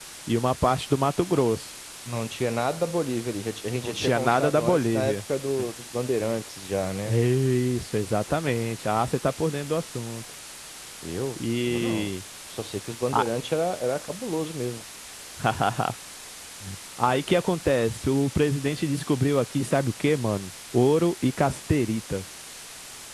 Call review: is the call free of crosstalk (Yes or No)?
No